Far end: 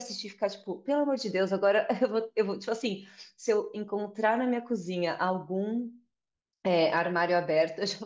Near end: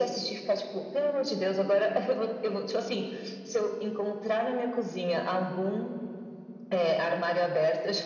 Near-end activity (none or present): none